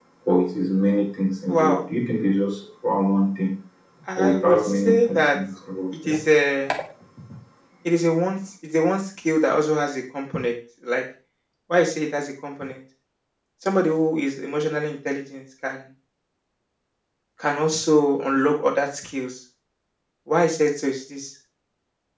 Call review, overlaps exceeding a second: present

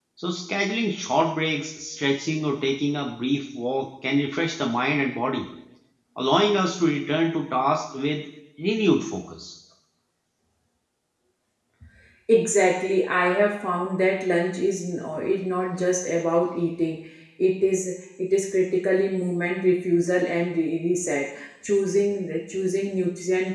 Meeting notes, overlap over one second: none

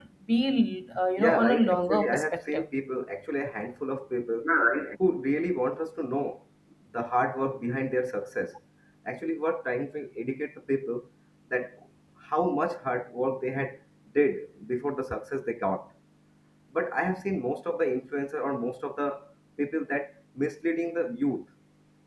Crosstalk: present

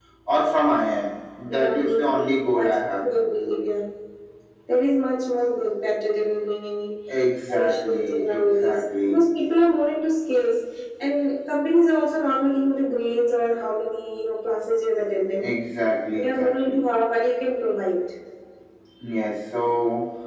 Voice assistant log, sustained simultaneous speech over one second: present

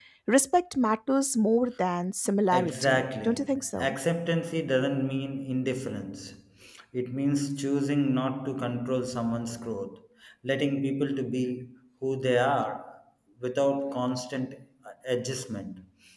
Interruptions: present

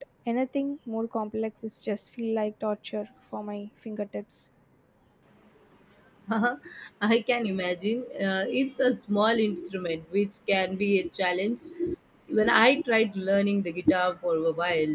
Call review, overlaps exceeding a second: none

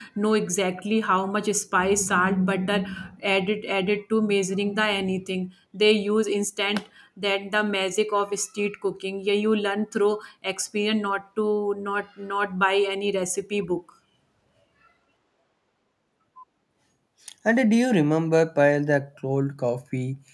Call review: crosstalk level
none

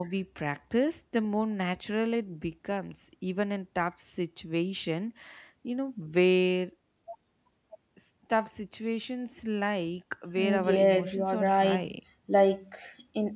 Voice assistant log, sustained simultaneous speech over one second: present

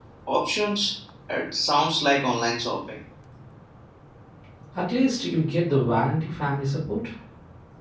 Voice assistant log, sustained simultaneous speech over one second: none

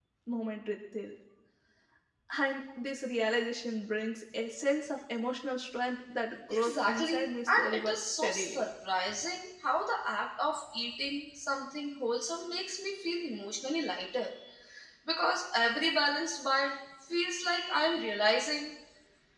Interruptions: present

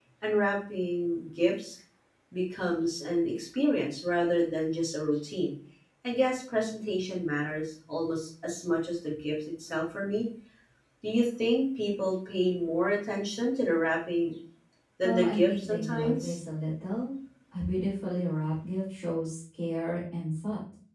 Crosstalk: present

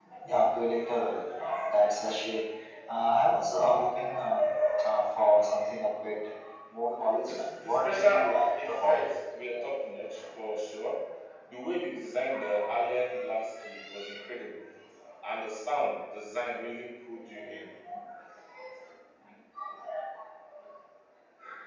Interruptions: present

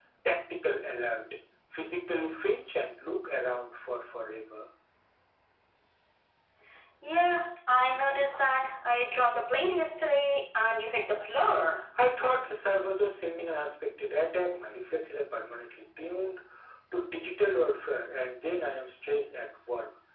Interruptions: none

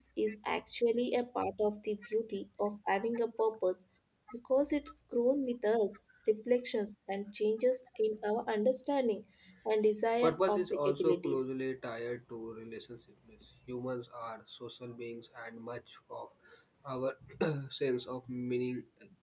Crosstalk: present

